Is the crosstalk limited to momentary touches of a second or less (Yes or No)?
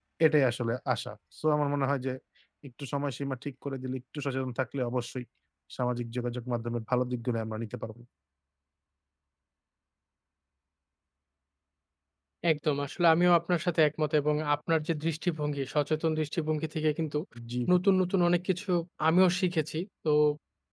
Yes